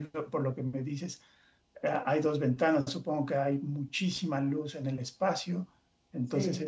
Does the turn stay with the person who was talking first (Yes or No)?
Yes